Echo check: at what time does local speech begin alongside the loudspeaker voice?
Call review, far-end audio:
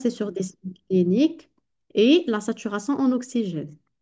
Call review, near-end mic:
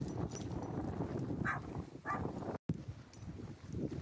none

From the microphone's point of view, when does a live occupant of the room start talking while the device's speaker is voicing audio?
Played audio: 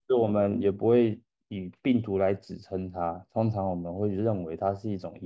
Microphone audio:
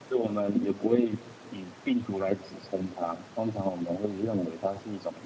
none

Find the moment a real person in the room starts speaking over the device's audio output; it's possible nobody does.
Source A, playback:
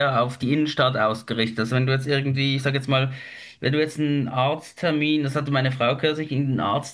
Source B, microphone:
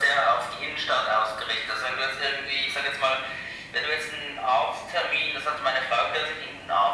none

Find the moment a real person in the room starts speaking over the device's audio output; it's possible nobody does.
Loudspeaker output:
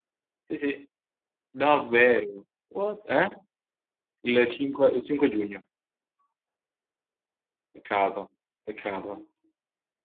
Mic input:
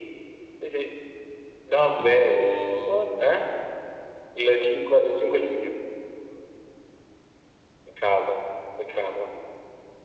2.0 s

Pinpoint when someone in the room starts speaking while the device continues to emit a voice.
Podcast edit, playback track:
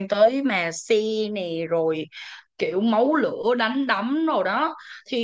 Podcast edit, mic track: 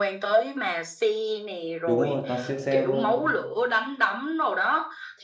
1.8 s

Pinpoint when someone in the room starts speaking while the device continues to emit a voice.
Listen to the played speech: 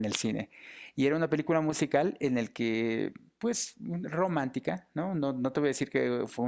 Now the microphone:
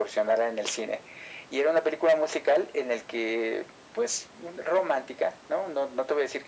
none

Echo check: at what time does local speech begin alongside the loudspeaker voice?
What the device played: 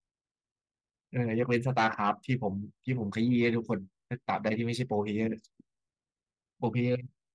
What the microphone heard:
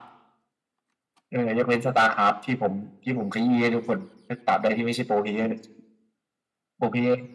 none

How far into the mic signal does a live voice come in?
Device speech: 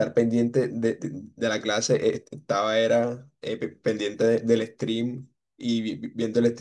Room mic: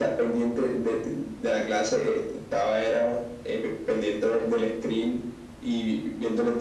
none

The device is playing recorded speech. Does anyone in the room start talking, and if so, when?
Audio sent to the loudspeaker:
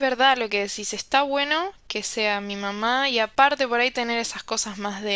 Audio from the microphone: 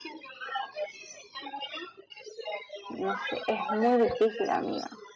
2.9 s

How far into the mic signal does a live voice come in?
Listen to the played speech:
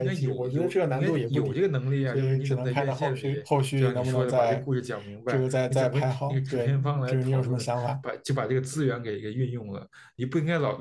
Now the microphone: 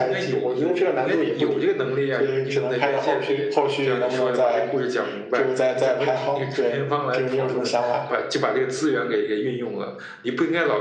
none

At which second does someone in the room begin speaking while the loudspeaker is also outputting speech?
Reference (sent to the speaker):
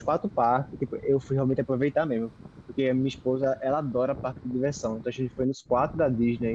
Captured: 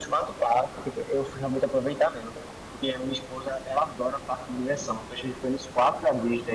none

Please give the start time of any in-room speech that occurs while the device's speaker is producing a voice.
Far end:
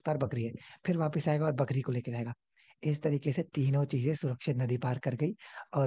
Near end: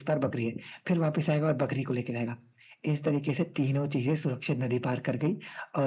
none

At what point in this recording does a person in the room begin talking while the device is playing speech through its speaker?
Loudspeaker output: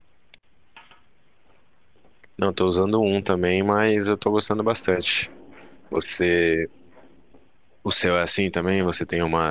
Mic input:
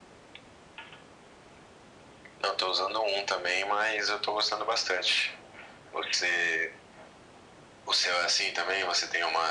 none

